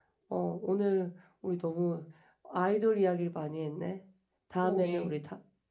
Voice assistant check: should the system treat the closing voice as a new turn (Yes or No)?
No